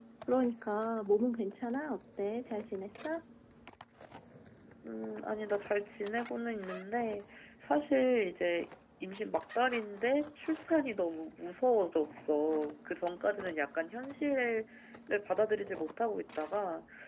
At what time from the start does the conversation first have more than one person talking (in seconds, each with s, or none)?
none